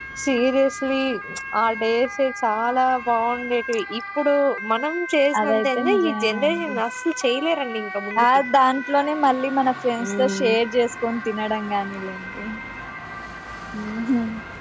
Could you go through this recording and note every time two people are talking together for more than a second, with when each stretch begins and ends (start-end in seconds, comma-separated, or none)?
5.4-6.8